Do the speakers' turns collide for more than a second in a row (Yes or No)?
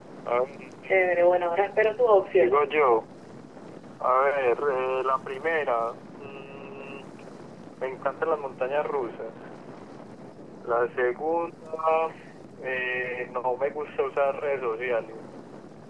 No